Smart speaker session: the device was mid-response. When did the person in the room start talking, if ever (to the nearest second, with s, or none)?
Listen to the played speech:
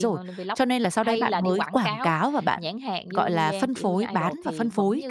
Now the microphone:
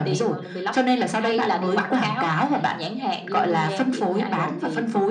none